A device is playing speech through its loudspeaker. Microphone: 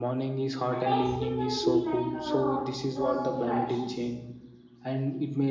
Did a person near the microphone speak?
Yes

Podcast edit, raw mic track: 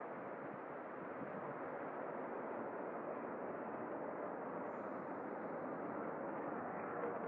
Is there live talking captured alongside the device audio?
No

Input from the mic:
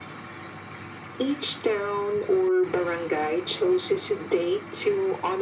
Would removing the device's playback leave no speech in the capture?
Yes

